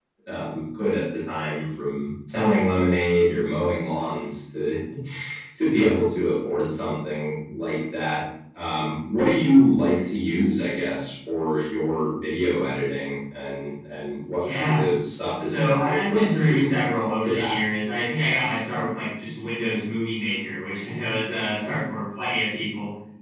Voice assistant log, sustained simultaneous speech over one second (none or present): present